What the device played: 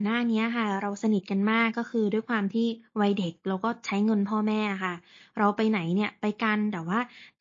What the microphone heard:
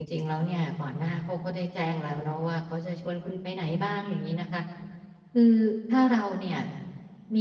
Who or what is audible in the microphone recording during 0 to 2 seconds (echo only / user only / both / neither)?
user only